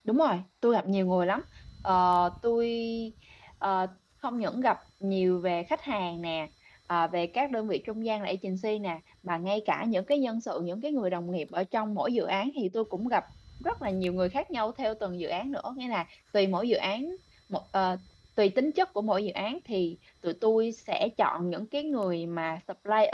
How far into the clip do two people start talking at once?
none

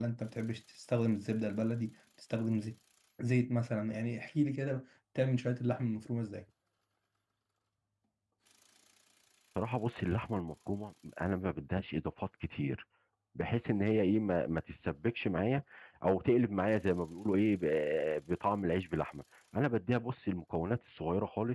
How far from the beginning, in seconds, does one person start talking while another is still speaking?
none

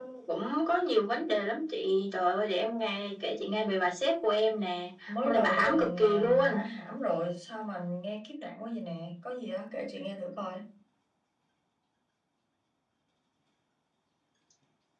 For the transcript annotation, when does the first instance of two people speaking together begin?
5.2 s

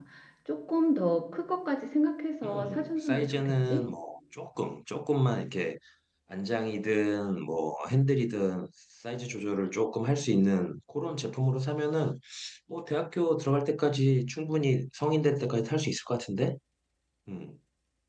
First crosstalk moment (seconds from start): 2.4 s

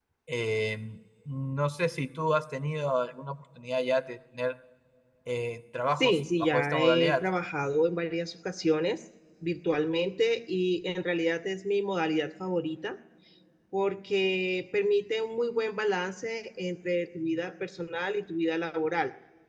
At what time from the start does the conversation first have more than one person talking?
6.0 s

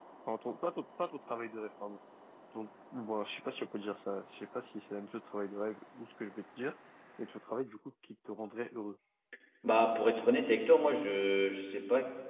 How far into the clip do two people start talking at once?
none

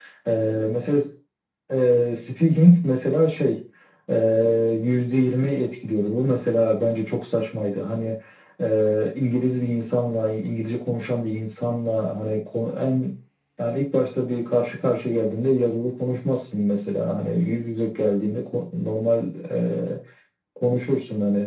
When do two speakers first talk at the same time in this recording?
none

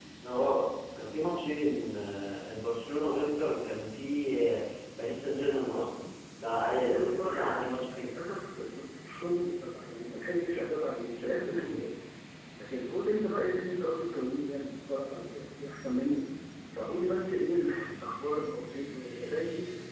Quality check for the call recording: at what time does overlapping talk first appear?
6.8 s

